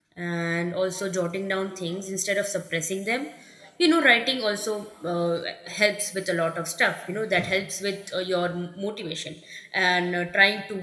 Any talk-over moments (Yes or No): No